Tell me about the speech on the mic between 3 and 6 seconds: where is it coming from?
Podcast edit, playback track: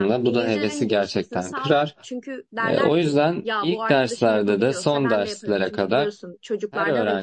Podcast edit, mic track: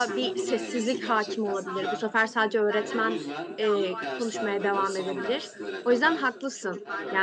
both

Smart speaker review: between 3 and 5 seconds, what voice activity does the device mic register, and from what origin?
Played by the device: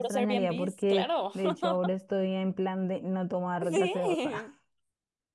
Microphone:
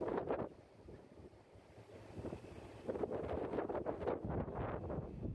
neither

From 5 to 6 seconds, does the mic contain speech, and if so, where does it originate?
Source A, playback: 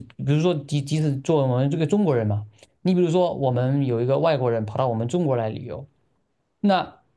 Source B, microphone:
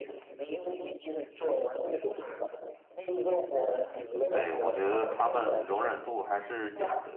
both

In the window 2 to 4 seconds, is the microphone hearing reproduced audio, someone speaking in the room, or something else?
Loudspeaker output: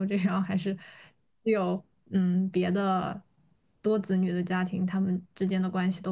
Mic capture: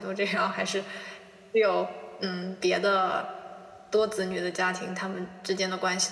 echo only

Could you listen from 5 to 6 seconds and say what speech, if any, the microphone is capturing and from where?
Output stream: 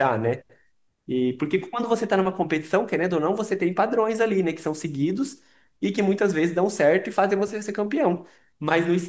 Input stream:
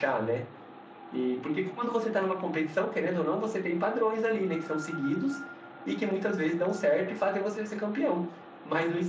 echo only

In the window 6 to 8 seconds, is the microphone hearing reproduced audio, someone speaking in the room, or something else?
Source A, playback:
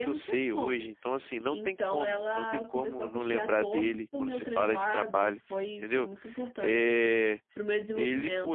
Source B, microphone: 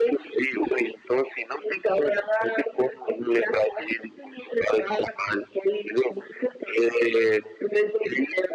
echo only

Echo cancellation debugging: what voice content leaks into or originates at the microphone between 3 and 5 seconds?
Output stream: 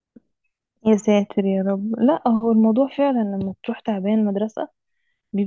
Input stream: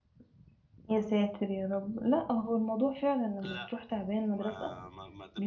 both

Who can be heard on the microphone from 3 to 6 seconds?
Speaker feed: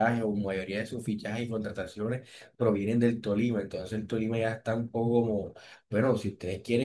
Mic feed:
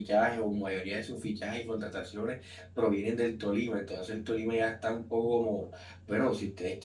echo only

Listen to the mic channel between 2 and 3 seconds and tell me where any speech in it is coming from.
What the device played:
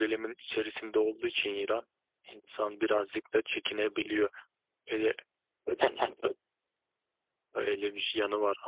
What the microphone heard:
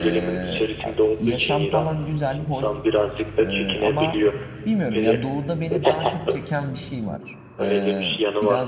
both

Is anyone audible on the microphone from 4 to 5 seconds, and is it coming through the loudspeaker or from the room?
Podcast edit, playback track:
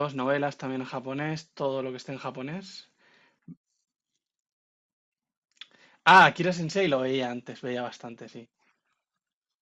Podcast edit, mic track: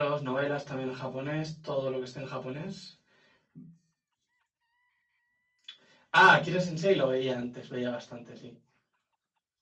neither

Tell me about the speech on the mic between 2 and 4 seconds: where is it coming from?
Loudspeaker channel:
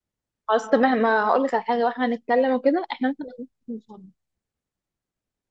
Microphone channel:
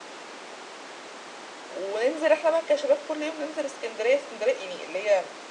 user only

